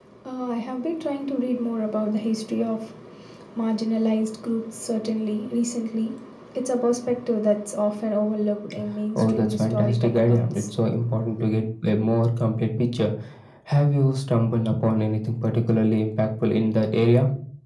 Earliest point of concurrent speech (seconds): 9.2 s

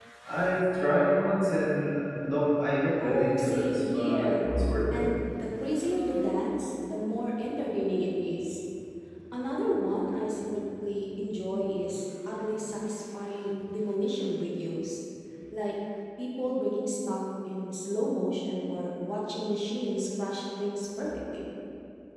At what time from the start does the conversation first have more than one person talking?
3.0 s

